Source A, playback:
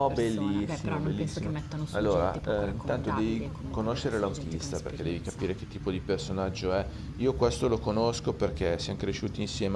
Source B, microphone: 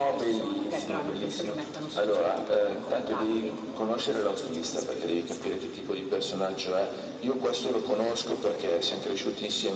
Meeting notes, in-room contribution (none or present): none